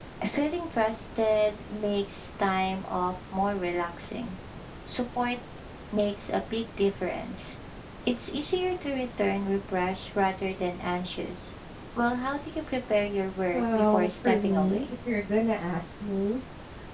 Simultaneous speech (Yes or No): Yes